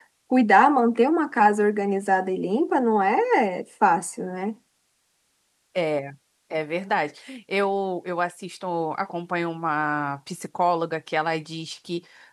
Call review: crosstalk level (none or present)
none